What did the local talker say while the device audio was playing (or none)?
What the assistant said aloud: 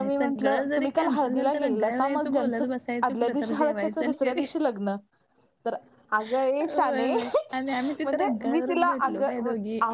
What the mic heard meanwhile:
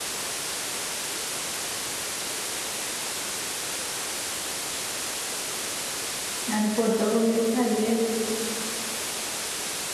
आणि फोटो वगैरे काढलेत